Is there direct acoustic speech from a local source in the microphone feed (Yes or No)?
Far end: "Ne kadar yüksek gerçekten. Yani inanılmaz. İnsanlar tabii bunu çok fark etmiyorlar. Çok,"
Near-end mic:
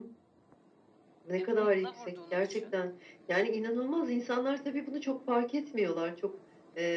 Yes